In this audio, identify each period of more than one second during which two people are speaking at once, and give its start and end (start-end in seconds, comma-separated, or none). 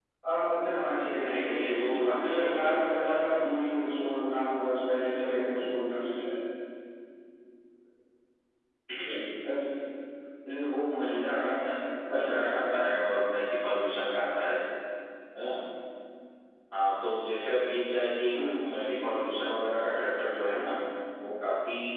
1.2-3.3